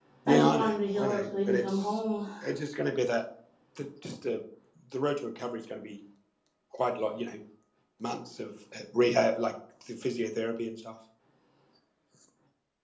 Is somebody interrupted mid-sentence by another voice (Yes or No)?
Yes